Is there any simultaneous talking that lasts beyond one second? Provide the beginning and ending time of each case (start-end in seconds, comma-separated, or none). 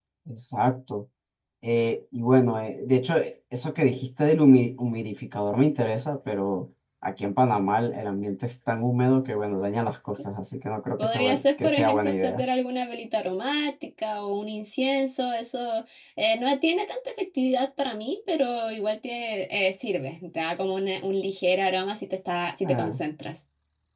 11.0-12.4